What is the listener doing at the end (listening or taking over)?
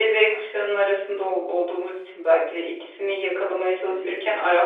listening